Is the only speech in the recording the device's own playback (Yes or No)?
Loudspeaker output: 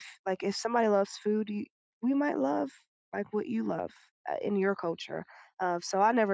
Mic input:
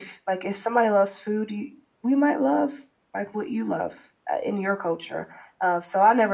Yes